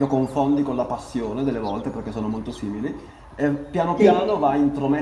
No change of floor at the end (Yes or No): Yes